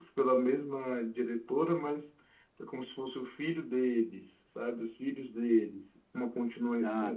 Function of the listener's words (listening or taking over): listening